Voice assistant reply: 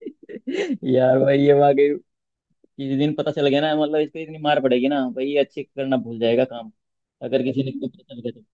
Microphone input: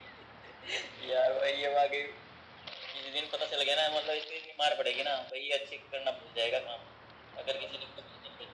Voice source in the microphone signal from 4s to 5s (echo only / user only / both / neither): echo only